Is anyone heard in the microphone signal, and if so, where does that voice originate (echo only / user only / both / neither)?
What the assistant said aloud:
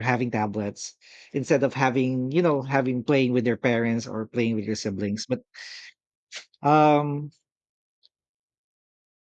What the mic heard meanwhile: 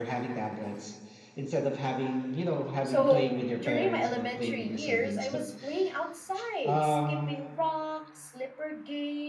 both